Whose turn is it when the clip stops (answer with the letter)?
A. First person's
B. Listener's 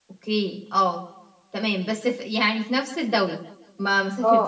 B